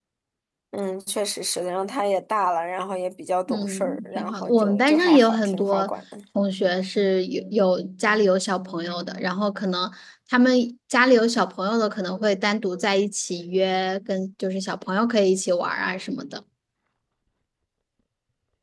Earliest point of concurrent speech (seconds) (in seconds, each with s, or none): 3.5 s